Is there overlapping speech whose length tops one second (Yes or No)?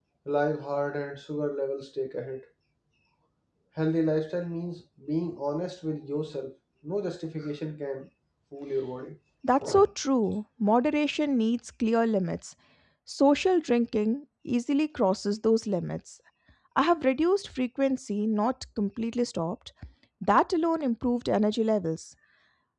No